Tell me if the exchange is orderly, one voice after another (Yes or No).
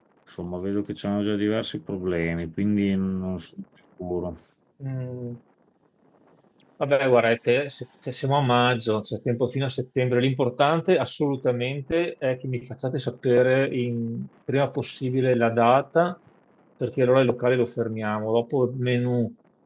Yes